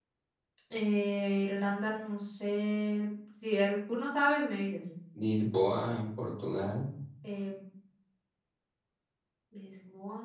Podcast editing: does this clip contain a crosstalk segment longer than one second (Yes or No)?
No